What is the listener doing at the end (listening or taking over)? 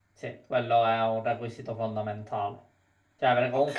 listening